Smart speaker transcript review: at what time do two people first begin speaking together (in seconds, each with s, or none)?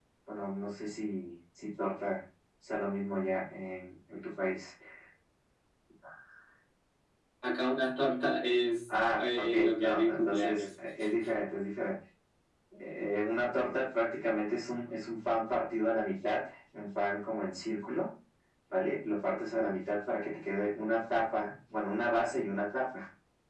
9.1 s